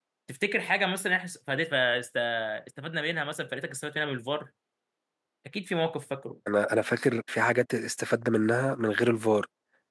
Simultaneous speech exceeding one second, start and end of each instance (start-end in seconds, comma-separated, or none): none